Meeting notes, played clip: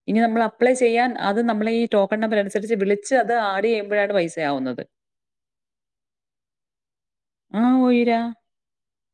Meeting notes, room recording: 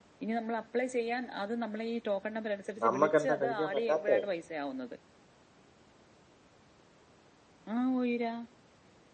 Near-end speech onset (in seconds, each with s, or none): 2.8 s